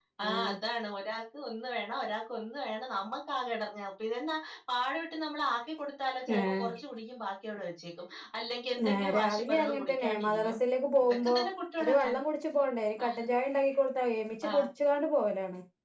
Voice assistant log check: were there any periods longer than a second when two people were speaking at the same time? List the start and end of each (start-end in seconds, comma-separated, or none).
8.9-10.6